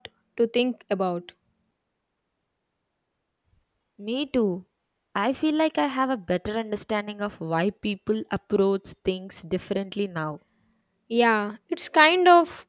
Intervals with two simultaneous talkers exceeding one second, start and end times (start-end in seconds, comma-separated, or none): none